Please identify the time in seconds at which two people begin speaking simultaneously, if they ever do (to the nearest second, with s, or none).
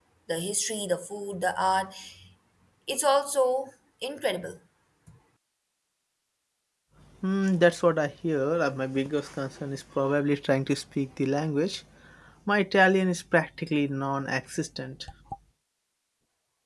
none